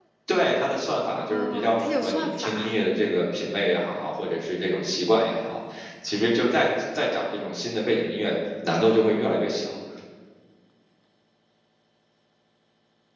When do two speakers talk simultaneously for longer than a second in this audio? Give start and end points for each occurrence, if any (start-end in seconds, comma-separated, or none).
1.3-2.7